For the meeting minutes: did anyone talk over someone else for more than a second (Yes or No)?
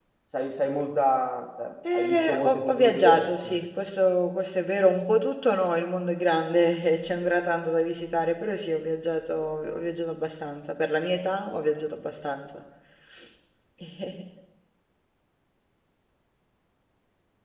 Yes